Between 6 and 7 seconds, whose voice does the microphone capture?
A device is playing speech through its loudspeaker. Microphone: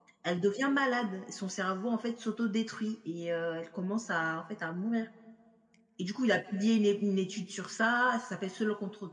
echo only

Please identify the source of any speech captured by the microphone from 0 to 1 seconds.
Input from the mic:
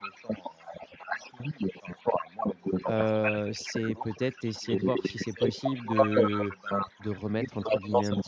echo only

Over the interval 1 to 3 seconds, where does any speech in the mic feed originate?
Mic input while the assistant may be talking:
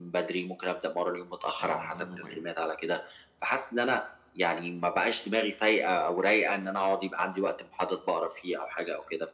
both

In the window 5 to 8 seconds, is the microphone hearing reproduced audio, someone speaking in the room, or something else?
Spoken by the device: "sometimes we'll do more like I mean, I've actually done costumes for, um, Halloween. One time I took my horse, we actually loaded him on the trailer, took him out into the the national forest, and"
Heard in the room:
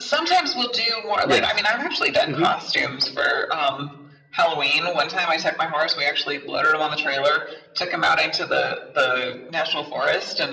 echo only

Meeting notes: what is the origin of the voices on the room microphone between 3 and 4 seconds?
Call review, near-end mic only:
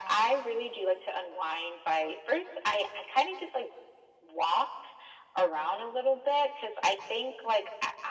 echo only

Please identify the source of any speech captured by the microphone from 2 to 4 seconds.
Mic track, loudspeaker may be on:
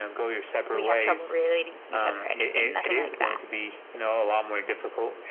both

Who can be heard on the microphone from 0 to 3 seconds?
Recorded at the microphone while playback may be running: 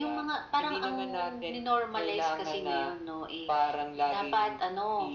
echo only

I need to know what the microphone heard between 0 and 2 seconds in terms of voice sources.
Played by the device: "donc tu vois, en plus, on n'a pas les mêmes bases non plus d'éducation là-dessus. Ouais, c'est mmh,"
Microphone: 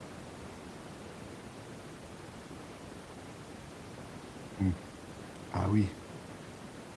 neither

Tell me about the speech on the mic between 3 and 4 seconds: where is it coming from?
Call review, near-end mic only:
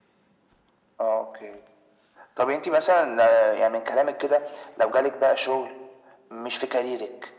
echo only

